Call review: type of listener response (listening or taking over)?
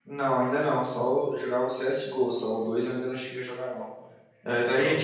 listening